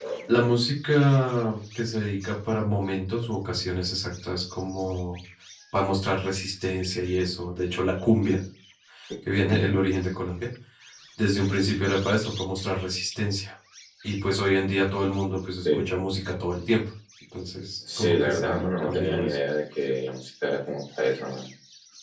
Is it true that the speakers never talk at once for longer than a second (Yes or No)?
No